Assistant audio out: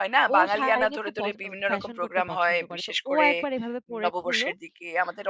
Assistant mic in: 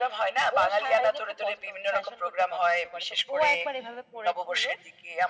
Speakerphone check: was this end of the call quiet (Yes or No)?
Yes